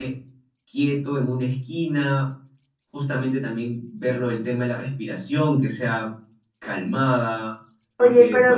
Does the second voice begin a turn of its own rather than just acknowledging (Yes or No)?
Yes